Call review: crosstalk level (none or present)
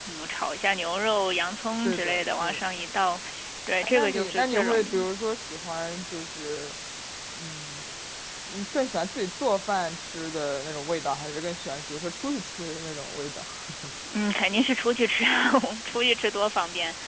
present